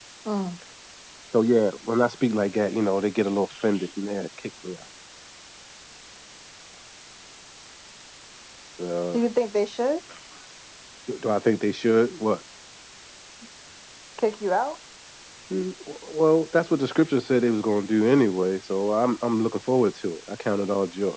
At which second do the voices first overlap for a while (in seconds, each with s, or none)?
none